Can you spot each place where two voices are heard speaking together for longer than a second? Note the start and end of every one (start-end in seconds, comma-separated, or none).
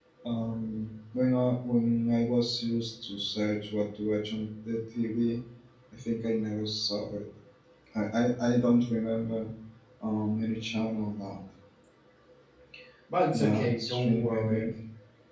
13.3-14.6